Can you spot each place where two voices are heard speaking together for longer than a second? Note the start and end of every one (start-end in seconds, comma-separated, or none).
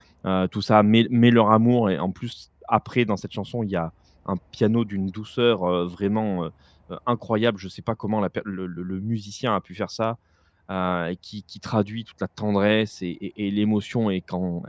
none